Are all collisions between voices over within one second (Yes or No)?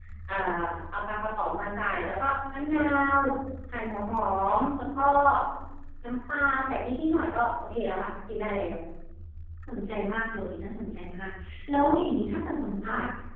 Yes